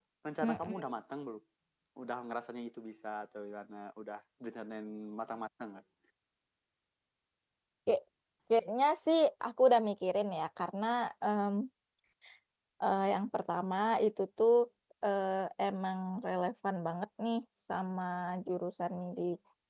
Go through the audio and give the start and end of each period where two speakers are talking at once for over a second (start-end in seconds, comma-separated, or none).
none